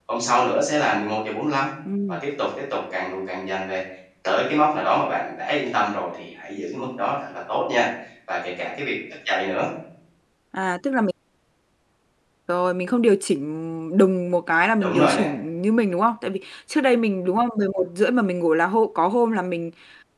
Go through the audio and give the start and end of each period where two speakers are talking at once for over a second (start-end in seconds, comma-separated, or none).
none